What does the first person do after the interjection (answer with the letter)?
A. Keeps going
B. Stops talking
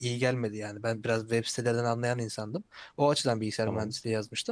A